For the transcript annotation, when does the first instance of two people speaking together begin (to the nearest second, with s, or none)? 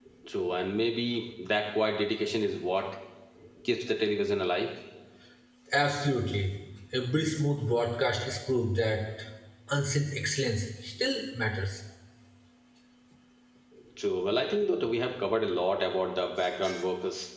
none